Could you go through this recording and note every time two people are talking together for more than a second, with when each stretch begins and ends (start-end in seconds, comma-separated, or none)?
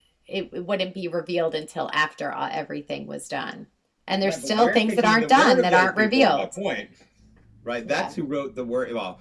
4.2-6.5